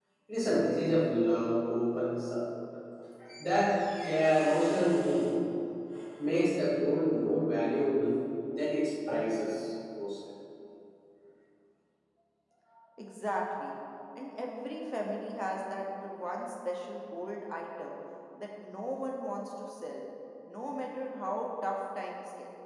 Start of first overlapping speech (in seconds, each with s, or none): none